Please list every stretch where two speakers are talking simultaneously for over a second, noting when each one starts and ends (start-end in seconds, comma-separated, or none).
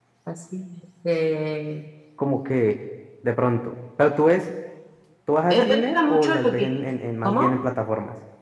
5.5-6.7